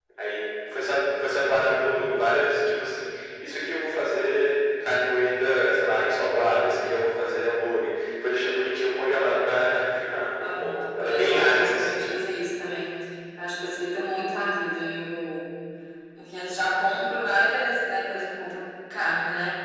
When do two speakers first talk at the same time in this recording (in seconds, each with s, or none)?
10.4 s